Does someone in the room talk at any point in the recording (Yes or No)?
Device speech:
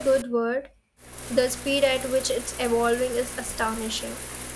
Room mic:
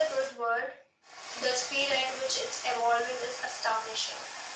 No